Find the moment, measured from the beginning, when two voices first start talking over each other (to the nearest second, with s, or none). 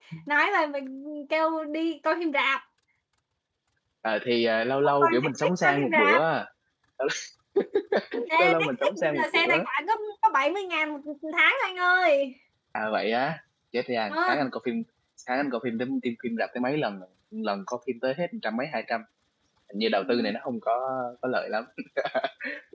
5 s